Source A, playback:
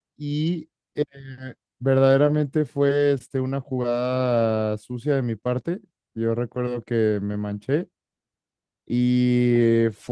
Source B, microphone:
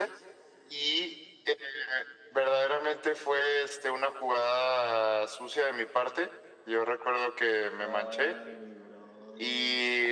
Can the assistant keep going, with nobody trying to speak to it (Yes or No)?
No